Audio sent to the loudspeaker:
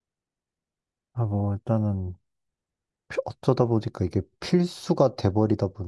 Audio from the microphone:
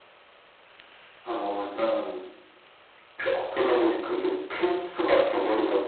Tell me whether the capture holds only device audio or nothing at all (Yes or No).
Yes